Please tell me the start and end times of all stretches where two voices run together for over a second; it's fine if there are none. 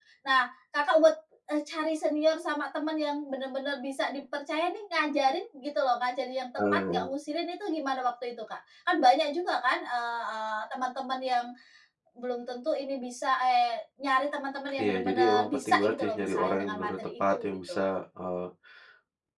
14.8-17.8

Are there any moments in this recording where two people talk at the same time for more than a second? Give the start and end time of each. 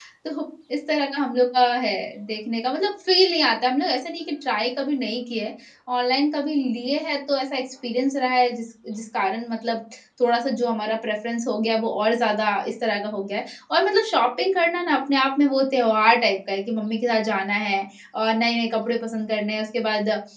none

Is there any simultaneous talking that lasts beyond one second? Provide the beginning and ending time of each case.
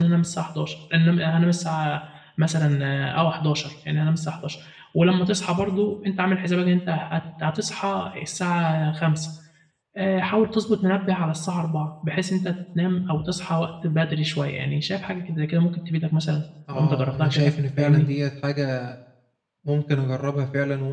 16.7-18.0

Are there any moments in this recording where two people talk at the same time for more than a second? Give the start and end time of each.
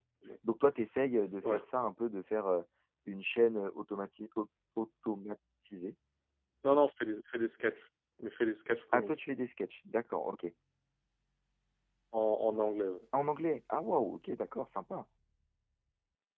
none

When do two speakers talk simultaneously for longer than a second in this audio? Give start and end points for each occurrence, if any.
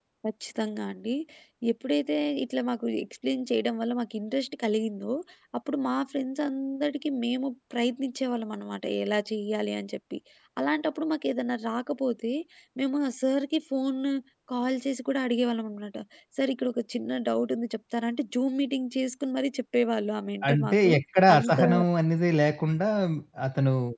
none

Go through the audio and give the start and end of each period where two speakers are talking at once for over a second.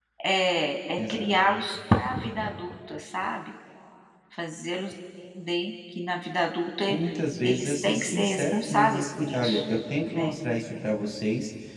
7.4-9.6

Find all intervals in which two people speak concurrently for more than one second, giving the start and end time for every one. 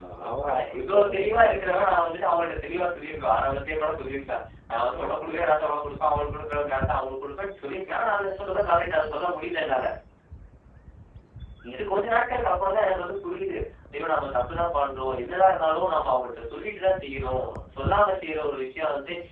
0.5-1.7

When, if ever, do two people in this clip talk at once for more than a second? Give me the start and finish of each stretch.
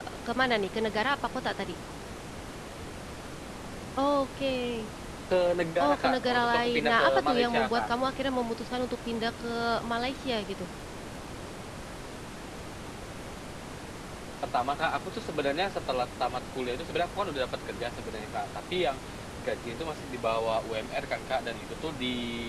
5.8-7.9

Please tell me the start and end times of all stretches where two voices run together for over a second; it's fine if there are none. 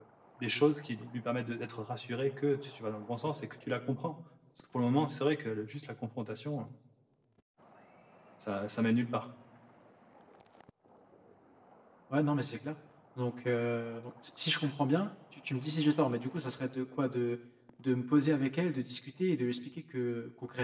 none

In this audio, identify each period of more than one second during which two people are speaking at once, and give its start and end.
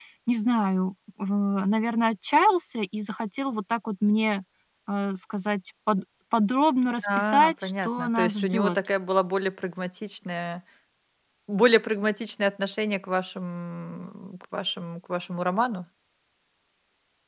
7.2-8.8

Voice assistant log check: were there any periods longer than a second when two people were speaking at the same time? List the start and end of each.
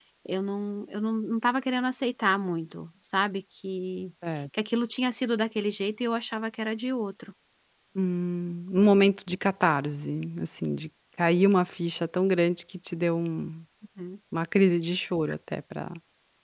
none

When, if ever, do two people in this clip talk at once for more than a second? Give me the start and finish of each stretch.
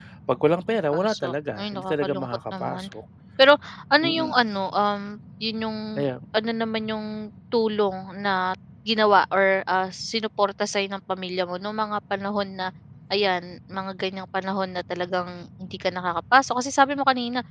0.7-2.9

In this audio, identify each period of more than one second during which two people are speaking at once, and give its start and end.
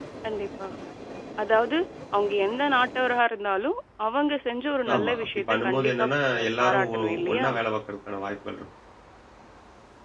4.9-7.5

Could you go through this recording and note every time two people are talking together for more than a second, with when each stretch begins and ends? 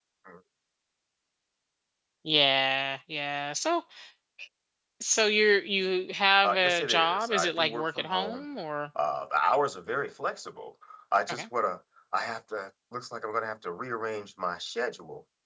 6.4-8.4

